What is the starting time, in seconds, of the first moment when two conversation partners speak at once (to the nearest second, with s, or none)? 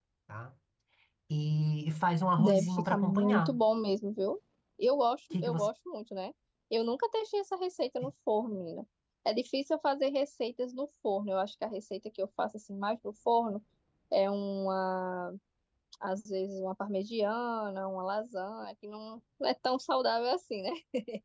2 s